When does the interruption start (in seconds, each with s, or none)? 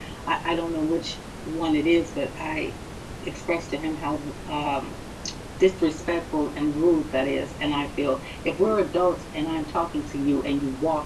none